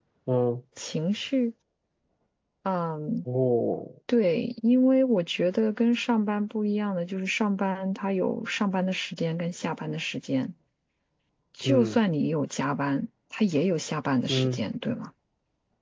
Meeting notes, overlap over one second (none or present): none